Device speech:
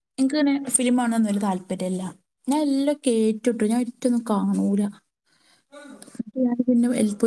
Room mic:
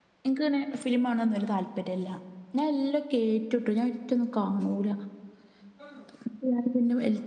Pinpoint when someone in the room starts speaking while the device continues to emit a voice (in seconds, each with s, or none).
none